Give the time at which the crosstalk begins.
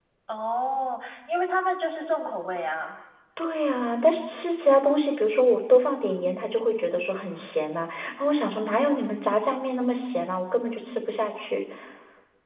none

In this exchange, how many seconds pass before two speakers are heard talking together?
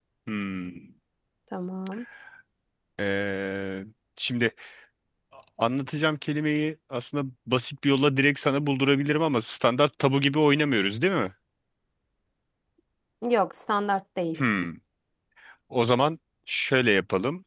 none

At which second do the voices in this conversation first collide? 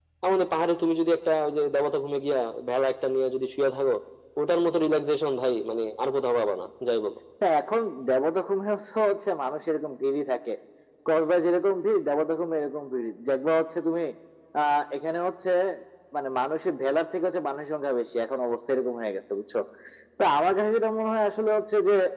none

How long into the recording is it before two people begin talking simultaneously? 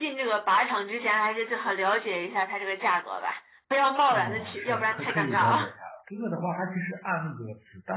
4 s

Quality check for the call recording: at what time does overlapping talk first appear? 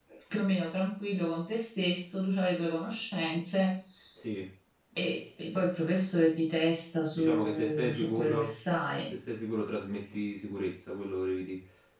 7 s

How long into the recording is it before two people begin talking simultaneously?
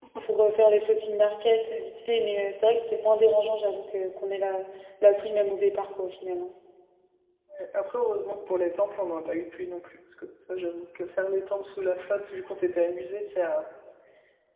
none

